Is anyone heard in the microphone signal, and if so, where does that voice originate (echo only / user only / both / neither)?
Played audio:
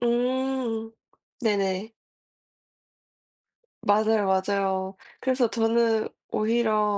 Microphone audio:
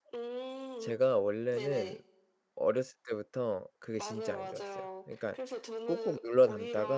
both